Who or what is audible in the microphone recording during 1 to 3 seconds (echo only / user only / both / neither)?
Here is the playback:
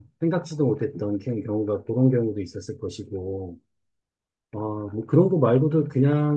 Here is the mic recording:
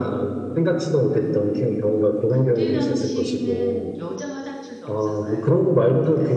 both